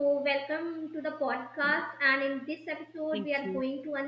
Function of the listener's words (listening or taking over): listening